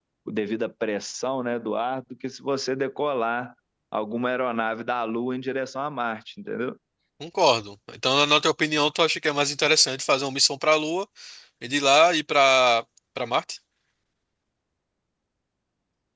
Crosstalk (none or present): none